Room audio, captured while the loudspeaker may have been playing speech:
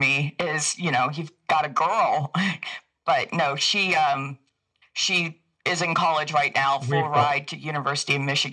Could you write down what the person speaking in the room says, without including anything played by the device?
we've got

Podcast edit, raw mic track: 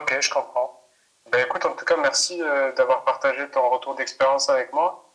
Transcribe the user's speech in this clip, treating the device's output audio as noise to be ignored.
none

